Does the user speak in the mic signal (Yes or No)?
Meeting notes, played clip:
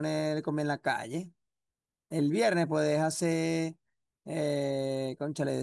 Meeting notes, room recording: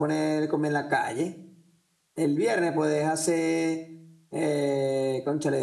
No